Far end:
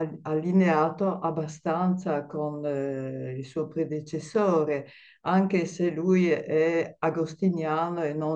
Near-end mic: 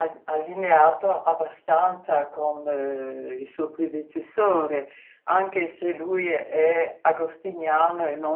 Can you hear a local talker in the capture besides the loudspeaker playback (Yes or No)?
No